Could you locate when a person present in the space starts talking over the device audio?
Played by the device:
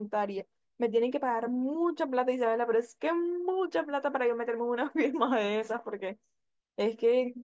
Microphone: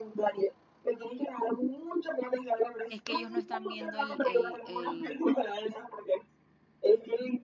3 s

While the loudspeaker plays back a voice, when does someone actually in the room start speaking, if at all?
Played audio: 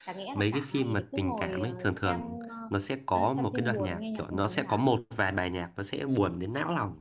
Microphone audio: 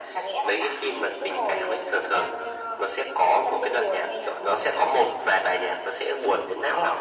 none

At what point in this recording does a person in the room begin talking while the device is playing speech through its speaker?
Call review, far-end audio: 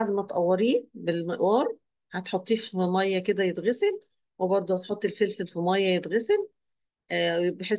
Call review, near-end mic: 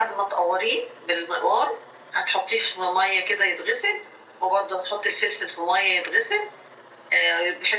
none

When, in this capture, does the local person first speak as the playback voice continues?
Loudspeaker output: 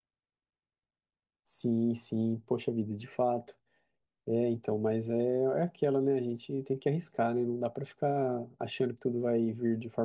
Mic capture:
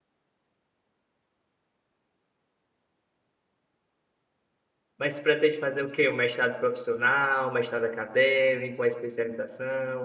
5 s

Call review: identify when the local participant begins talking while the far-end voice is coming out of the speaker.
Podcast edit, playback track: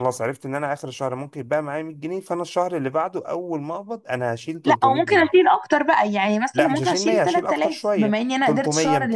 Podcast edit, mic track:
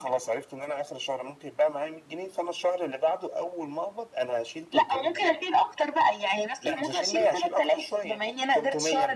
none

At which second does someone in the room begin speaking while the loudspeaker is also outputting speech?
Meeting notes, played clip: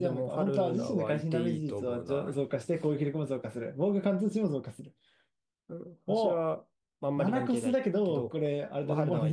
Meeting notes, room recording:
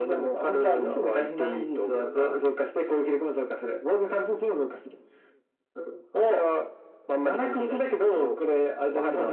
none

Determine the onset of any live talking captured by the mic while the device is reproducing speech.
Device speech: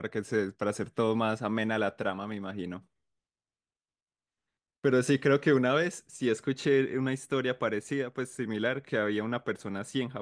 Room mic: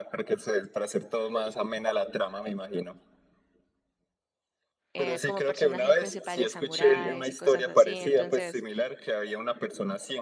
5 s

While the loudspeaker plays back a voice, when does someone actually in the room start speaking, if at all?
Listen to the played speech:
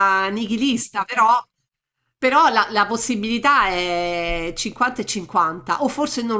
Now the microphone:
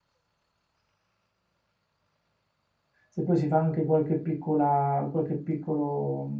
3 s

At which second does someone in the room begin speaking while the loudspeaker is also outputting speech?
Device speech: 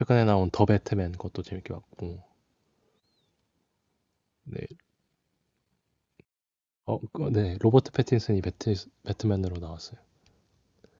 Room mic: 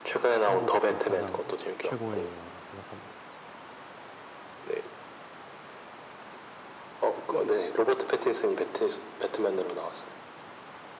0 s

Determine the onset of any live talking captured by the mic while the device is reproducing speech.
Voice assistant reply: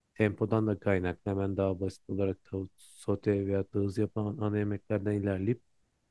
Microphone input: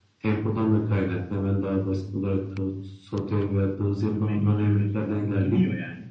4 s

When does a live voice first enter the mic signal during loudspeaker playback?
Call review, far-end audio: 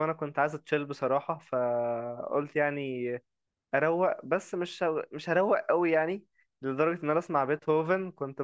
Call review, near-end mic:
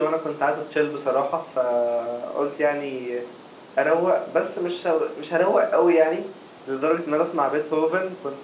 none

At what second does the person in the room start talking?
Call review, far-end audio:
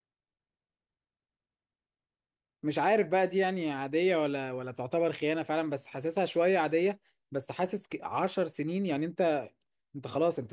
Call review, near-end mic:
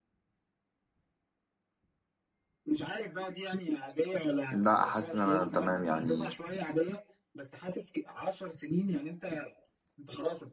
5 s

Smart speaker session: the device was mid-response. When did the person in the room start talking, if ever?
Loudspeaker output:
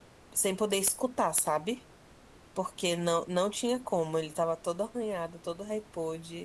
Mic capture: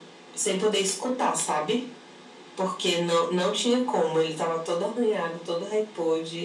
none

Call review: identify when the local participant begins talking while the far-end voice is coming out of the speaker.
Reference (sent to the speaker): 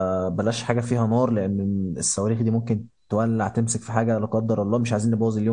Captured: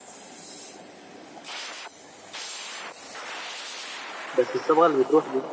4 s

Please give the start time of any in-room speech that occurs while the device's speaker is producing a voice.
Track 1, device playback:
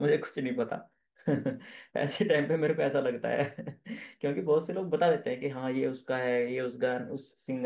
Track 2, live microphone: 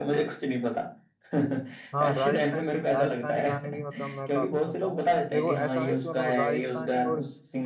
2 s

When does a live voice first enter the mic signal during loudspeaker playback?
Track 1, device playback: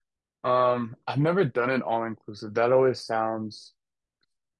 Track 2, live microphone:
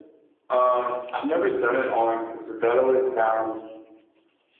none

